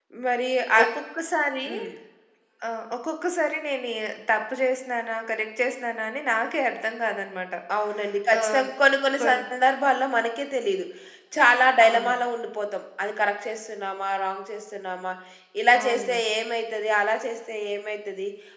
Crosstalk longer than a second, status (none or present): none